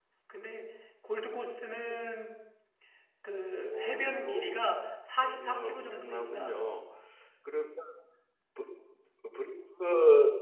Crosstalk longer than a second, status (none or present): present